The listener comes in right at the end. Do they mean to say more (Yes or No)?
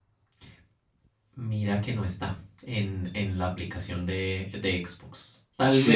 No